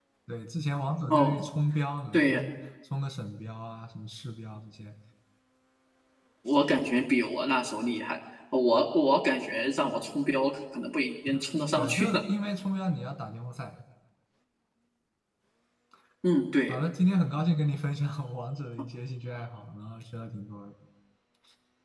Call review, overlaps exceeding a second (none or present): none